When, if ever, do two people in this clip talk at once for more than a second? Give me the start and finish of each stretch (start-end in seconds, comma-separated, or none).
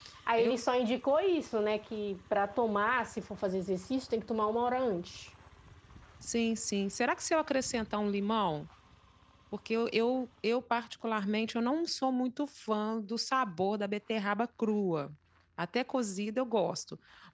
none